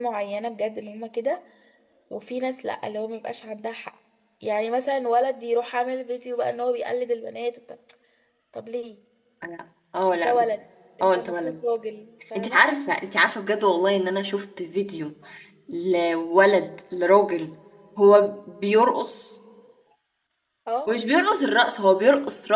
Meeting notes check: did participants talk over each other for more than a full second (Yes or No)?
No